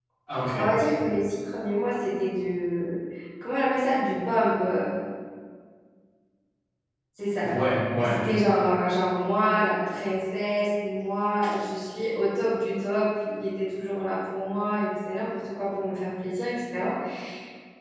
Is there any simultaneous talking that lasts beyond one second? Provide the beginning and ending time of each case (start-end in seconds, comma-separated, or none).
none